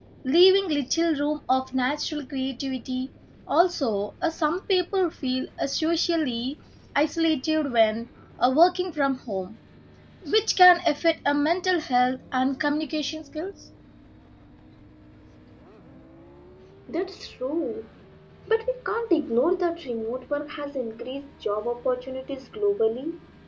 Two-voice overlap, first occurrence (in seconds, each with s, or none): none